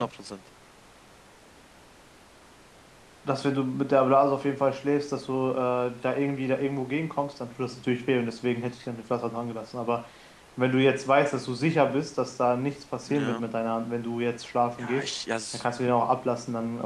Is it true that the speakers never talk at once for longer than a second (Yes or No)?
Yes